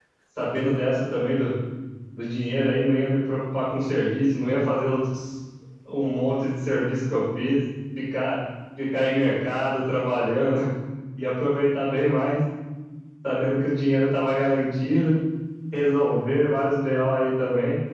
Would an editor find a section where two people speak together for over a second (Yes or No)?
No